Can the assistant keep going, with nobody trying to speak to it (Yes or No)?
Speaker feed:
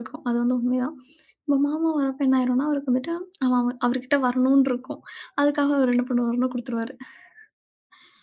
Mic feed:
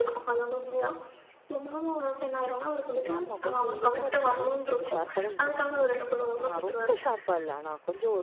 No